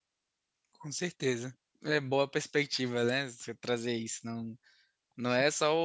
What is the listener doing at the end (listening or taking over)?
listening